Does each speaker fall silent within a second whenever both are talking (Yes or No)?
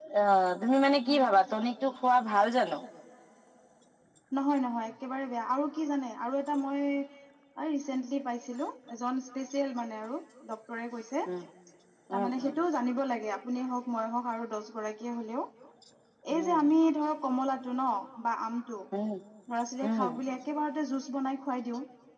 Yes